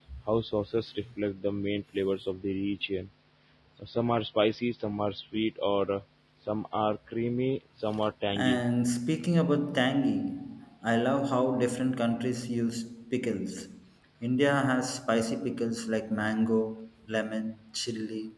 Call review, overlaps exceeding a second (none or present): none